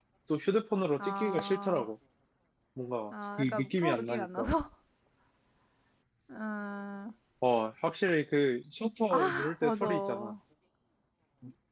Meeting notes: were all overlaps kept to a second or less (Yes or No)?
No